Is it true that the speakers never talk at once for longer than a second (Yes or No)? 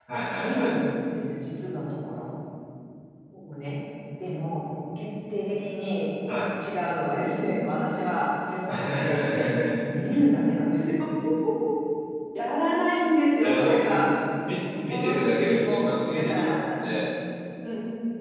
No